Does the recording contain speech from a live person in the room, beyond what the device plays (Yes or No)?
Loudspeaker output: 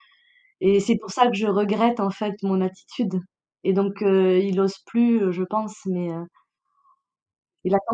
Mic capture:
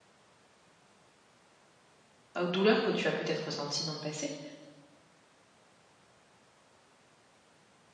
Yes